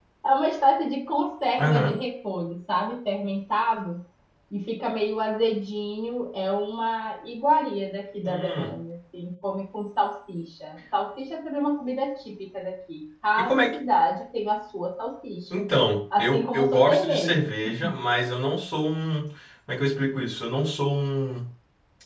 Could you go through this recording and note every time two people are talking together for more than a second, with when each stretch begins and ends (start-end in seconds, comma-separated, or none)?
16.2-17.5